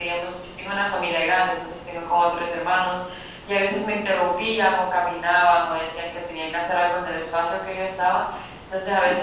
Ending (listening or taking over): listening